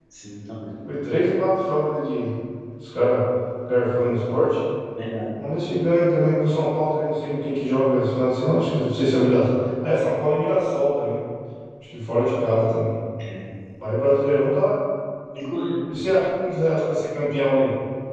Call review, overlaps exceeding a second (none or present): none